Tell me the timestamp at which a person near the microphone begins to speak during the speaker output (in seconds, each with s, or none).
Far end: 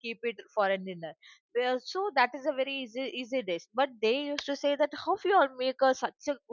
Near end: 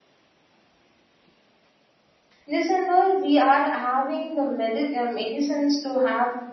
2.5 s